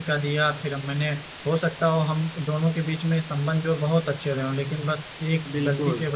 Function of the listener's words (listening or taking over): listening